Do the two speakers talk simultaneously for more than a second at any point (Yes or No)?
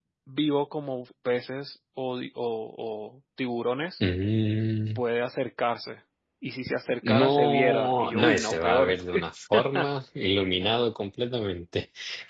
Yes